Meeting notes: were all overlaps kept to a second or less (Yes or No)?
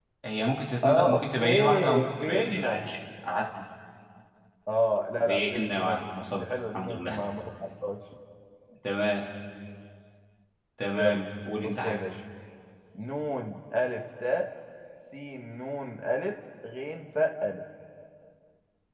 No